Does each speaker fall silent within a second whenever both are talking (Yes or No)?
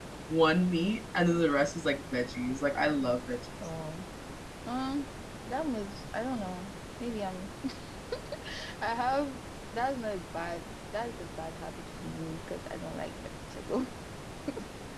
Yes